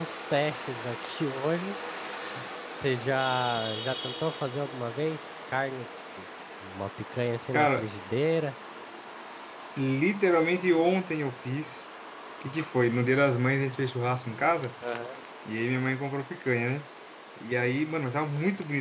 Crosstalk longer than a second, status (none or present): none